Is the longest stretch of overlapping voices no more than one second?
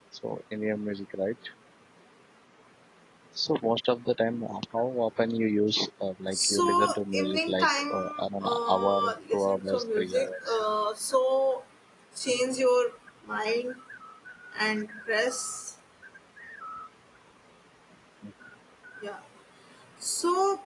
No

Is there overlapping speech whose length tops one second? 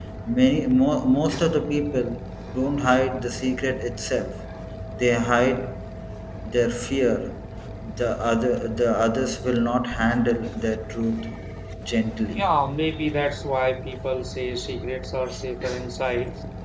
No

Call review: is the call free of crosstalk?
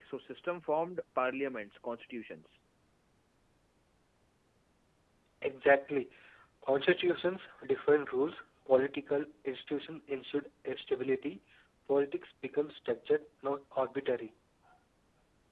Yes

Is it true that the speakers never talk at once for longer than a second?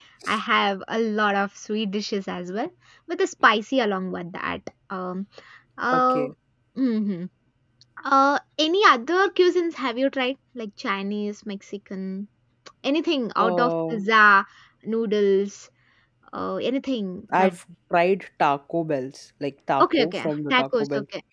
No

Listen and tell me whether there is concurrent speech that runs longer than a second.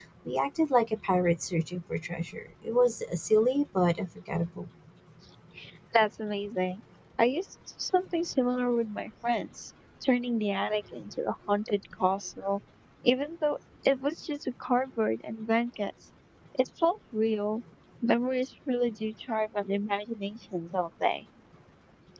No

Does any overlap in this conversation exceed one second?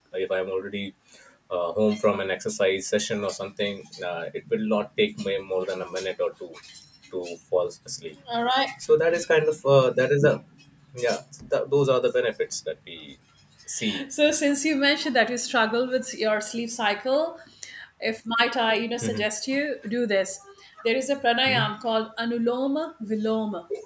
No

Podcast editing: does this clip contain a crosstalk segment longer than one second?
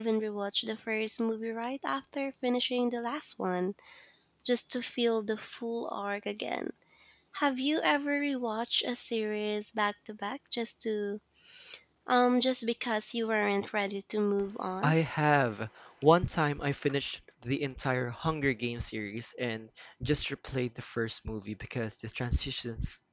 No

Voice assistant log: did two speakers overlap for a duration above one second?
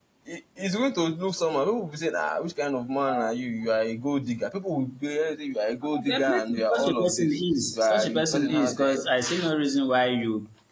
Yes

